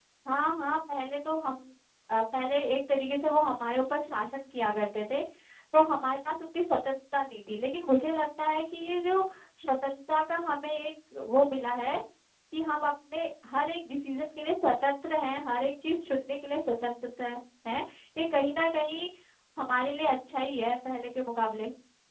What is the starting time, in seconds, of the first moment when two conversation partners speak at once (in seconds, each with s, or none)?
none